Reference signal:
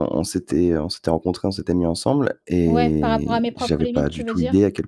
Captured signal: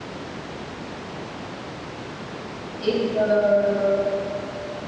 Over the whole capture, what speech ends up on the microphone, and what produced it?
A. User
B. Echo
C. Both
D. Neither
A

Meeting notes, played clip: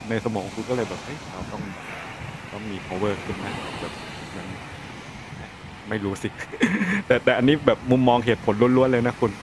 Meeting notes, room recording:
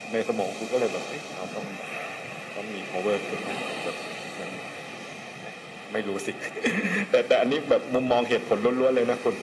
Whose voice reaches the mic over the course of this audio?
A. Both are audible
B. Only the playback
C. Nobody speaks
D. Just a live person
B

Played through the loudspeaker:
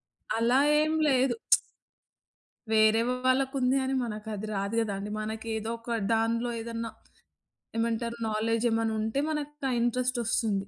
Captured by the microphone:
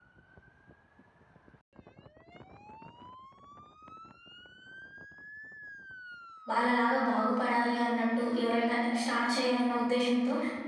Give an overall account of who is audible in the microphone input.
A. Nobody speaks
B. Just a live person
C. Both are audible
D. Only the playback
B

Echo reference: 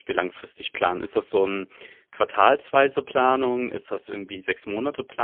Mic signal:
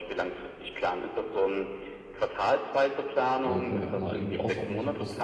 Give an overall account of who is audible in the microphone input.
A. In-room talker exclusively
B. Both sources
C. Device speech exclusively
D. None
B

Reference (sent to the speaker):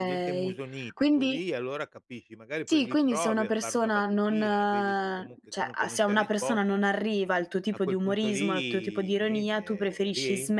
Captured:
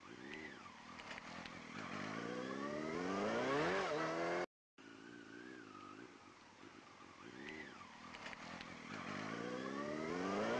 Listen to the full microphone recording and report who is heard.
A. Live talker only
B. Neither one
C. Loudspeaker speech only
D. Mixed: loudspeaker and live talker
B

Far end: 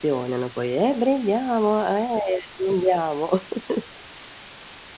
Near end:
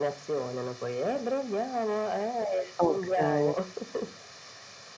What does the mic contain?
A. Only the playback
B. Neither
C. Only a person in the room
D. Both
D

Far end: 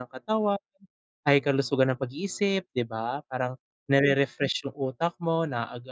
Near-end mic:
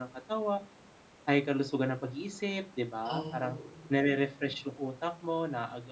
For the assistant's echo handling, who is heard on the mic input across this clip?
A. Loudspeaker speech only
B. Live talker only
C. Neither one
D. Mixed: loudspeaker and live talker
D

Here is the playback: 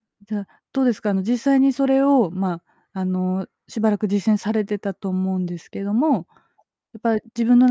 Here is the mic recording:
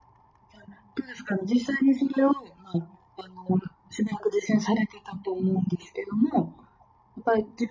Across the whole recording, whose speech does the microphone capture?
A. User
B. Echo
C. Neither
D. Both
B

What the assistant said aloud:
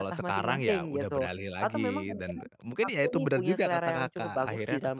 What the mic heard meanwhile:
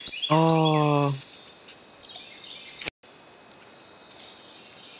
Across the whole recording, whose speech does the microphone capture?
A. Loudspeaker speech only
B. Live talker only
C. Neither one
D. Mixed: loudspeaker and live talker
B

